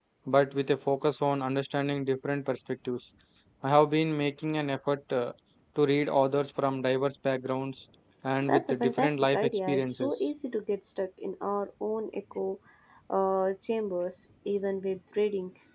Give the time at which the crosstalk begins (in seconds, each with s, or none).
8.4 s